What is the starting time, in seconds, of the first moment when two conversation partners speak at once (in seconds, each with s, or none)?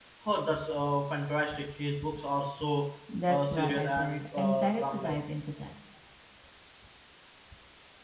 3.1 s